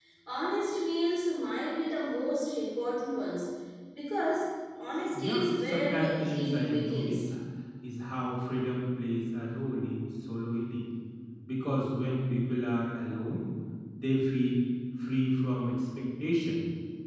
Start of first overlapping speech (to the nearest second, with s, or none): 5 s